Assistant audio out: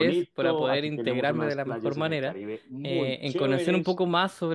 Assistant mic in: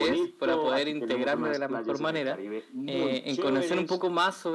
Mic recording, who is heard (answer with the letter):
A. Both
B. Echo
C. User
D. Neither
B